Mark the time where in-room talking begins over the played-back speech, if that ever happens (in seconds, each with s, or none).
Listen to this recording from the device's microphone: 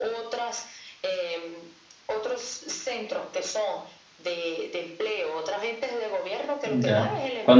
6.6 s